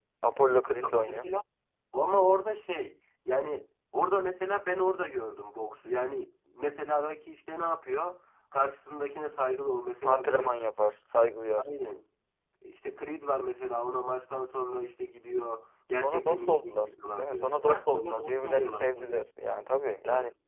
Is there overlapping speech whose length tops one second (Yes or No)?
Yes